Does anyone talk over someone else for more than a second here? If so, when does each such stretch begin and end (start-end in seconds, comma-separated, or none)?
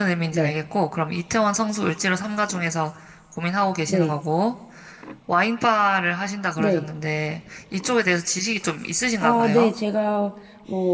none